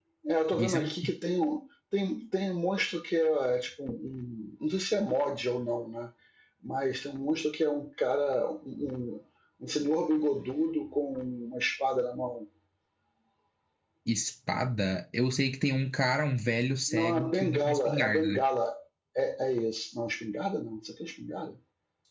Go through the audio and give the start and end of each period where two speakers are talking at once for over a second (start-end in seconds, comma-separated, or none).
16.9-18.4